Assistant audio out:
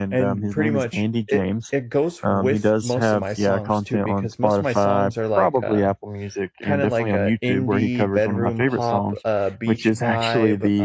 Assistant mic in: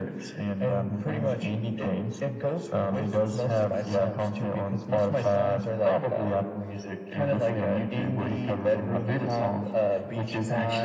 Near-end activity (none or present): none